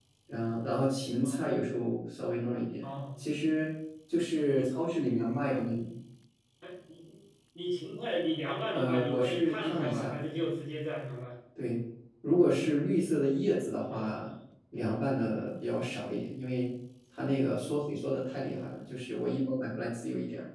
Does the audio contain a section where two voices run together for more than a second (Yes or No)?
Yes